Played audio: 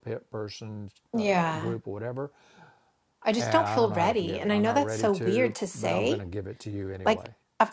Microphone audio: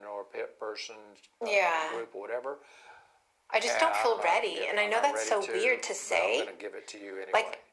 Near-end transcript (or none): none